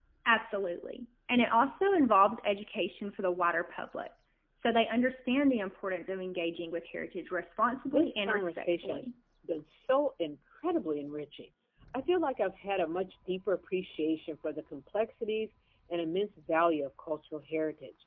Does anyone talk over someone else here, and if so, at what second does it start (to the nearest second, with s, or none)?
8 s